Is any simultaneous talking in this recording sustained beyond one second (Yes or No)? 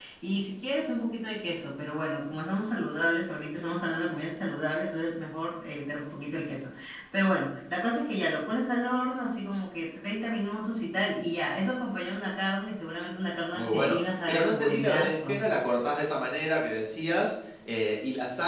Yes